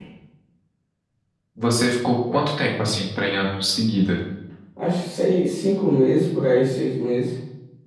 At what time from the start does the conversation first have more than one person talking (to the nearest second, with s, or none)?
none